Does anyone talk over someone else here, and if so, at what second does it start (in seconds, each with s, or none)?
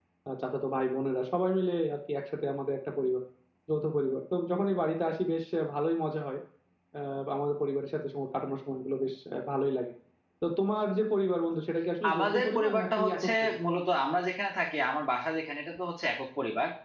12.0 s